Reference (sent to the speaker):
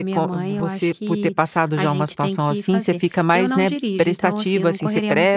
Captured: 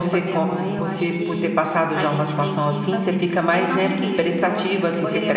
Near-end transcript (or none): none